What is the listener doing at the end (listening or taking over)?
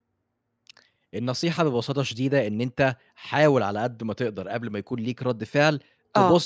listening